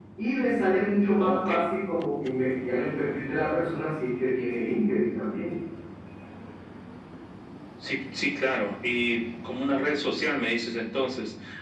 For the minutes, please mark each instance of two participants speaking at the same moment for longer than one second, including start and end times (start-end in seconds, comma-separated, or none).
none